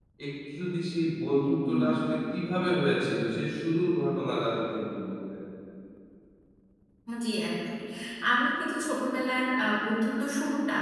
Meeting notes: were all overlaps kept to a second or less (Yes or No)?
Yes